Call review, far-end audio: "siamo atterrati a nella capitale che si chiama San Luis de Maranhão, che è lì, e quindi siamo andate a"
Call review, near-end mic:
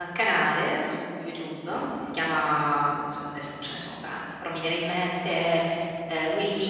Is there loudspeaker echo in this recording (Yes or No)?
No